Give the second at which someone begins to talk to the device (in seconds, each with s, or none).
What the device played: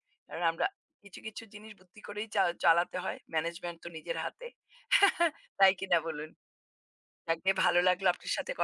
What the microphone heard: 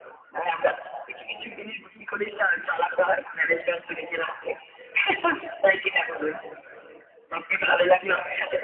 none